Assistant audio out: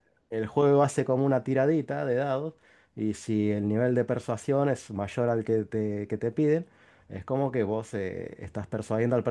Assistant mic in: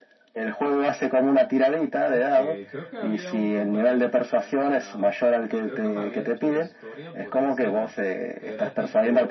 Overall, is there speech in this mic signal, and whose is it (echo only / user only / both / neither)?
both